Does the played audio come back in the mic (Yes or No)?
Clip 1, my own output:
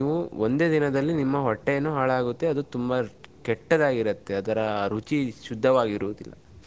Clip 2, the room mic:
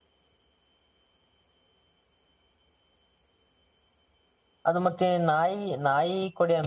No